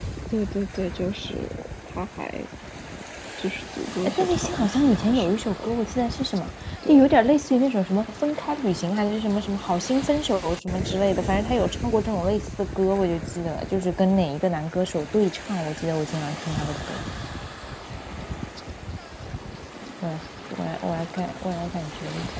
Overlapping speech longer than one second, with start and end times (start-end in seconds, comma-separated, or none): 4.2-5.7